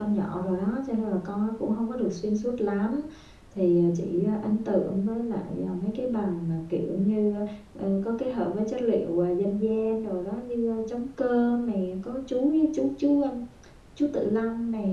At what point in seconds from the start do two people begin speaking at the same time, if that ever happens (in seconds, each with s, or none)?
none